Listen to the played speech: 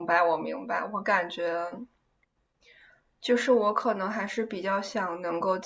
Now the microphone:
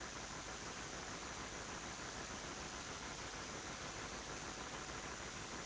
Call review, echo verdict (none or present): none